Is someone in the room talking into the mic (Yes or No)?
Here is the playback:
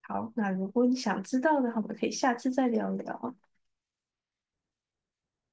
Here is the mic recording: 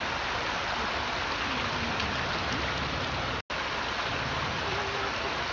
No